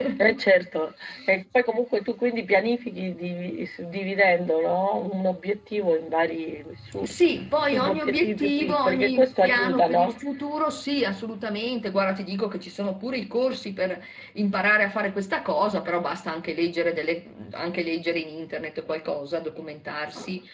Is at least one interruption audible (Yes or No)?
Yes